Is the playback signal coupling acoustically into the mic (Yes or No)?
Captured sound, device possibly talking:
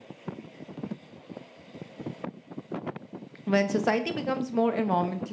No